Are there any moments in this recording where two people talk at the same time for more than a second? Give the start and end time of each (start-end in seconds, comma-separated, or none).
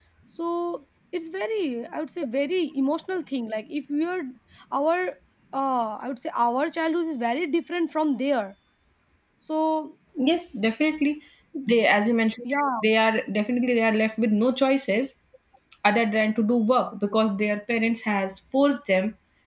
none